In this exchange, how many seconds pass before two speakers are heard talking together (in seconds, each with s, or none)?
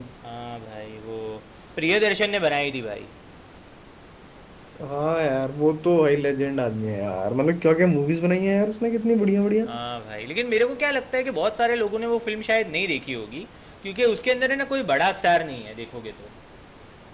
none